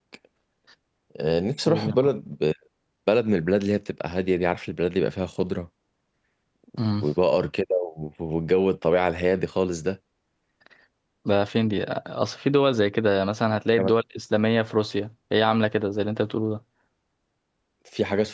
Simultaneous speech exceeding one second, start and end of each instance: none

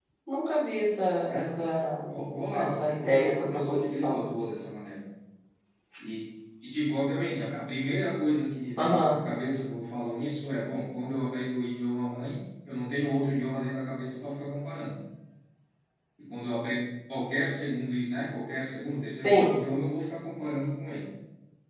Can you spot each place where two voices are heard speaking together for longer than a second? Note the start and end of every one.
2.5-4.2

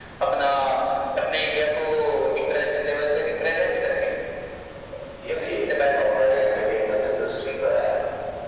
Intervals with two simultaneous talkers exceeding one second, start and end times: 5.2-6.5

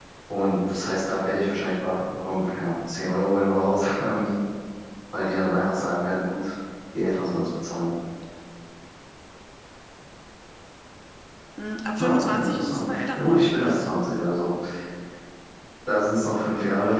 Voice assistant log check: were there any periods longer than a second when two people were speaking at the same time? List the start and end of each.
12.0-14.0

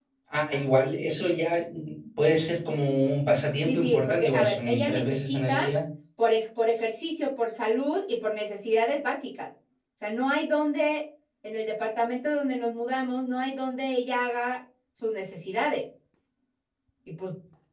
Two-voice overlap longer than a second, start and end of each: 3.6-5.7

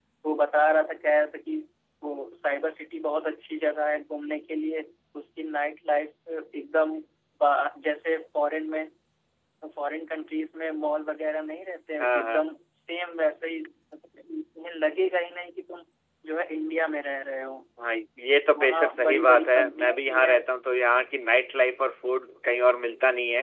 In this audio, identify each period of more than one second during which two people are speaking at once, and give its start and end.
18.6-20.4

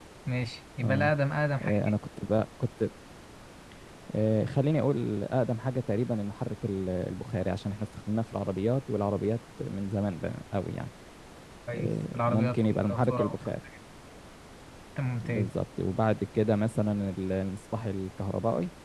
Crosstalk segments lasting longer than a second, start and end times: 11.8-13.3

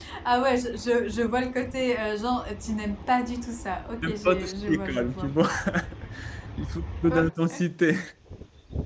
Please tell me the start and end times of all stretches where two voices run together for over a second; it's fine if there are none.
4.0-5.3

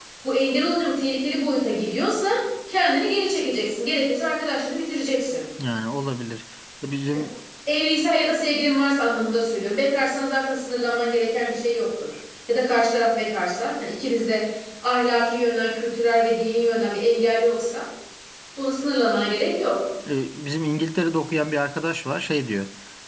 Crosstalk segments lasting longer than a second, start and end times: none

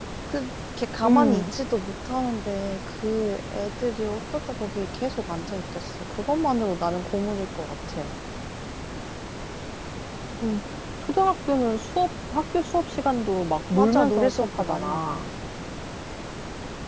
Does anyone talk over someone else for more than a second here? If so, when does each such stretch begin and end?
13.7-15.2

